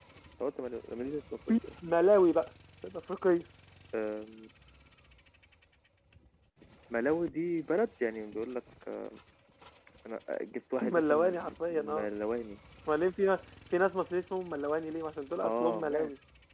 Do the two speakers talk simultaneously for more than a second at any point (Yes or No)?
Yes